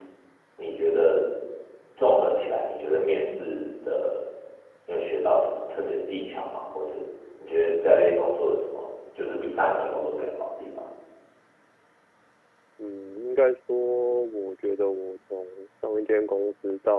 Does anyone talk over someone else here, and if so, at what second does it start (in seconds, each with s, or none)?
none